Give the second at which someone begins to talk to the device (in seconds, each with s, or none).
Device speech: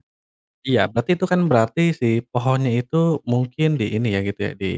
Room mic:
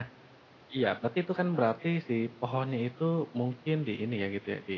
none